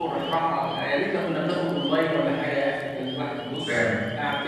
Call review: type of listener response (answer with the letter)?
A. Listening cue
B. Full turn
A